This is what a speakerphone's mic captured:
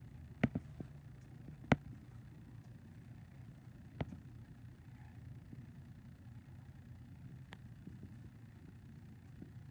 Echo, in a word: none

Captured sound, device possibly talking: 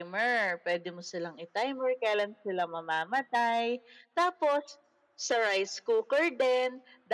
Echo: present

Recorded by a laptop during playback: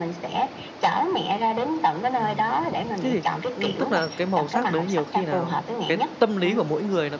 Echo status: present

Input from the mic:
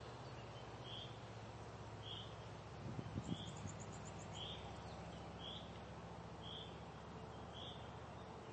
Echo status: none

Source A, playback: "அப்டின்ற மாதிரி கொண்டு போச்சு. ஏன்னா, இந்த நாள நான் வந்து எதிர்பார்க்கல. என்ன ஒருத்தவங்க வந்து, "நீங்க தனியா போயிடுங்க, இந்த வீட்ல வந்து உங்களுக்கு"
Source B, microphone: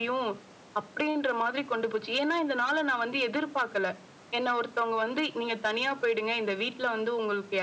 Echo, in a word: present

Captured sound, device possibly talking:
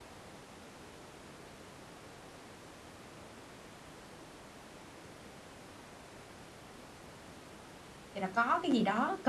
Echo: none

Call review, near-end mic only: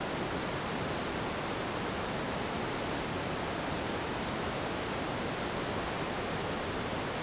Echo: none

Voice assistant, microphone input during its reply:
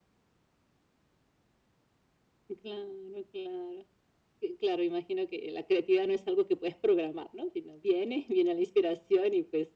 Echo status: present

